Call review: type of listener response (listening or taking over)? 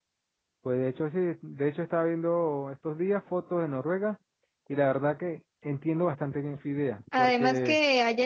taking over